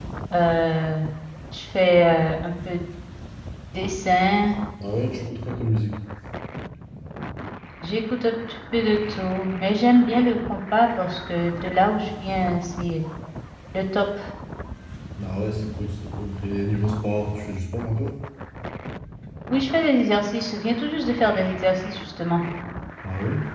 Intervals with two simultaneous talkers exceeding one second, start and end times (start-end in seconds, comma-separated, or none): none